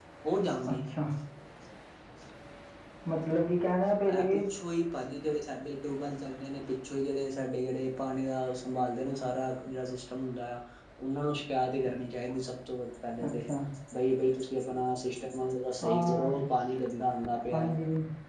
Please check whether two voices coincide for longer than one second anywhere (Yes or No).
No